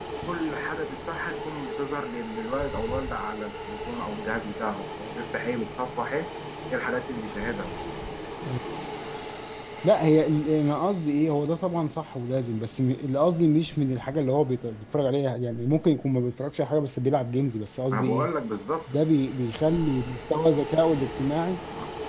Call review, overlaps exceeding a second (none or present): none